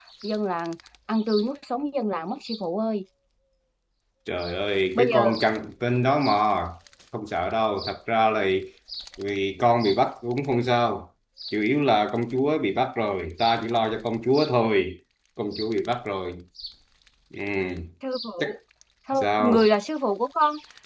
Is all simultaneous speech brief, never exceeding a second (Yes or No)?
Yes